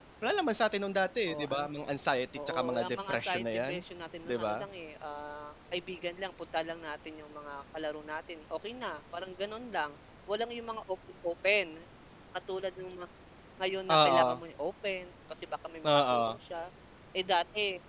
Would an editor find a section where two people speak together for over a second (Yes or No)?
Yes